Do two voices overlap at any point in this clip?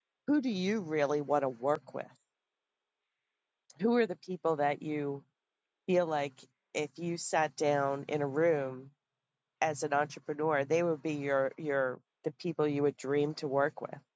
No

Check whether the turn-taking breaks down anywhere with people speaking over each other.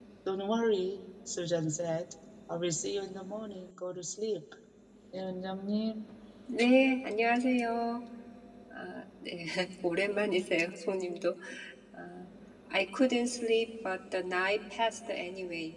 No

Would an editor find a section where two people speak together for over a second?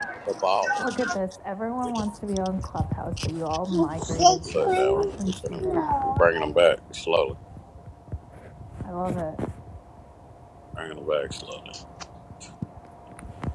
Yes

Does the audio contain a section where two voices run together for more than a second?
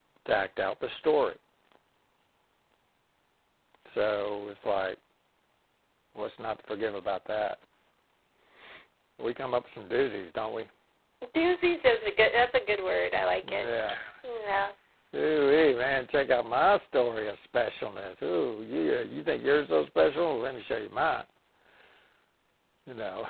No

